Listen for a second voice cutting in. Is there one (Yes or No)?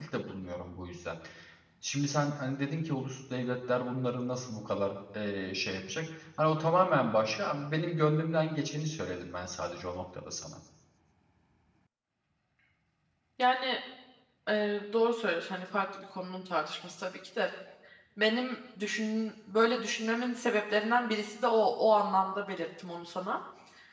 No